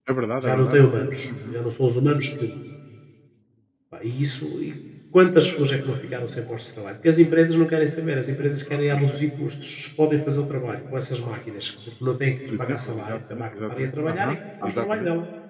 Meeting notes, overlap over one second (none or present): present